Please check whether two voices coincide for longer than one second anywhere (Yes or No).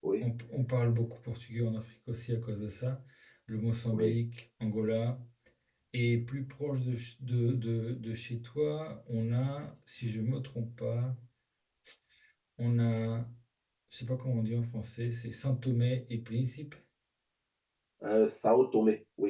No